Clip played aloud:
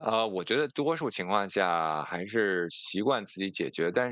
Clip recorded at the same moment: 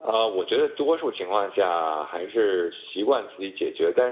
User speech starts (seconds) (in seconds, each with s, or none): none